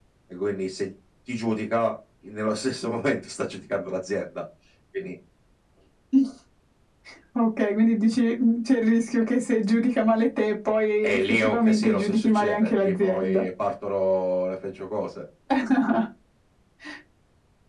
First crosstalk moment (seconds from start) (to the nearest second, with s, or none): 11 s